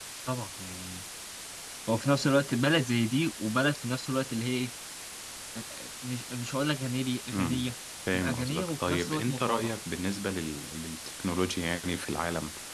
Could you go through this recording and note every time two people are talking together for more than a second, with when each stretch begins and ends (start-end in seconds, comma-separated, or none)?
8.1-9.8